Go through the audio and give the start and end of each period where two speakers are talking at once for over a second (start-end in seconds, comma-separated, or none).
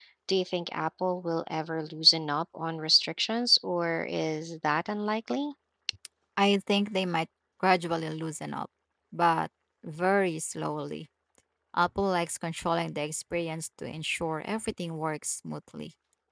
none